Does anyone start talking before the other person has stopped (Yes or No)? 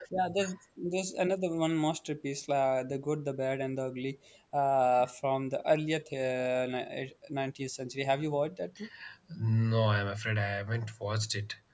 No